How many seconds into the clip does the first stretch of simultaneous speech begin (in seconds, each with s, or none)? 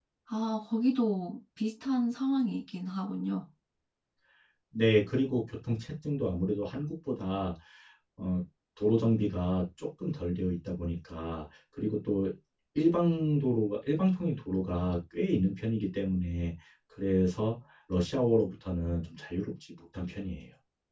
none